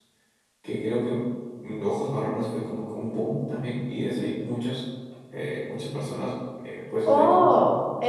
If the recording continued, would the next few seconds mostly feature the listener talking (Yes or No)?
Yes